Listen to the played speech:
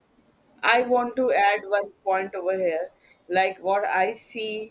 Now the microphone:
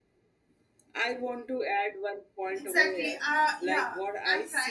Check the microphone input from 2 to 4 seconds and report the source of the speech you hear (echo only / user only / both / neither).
both